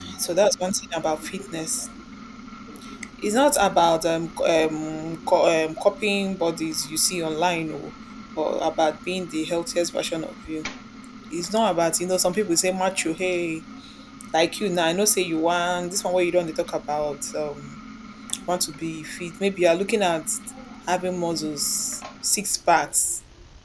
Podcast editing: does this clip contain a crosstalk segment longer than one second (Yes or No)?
No